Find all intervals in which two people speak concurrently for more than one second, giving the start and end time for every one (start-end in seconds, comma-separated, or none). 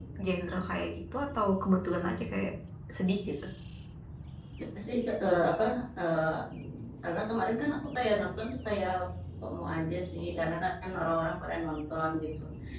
none